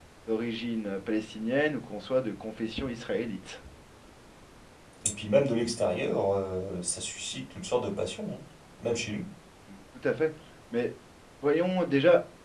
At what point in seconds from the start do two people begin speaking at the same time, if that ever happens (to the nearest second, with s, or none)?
none